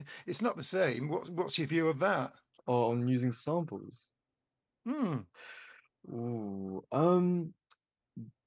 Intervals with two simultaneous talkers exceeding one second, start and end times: none

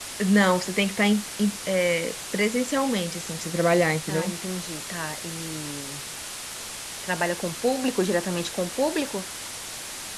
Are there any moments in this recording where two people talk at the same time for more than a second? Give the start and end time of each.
none

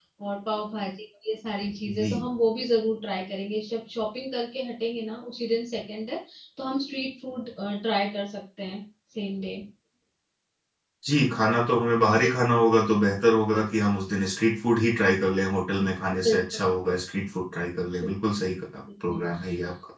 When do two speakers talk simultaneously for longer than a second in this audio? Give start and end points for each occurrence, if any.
none

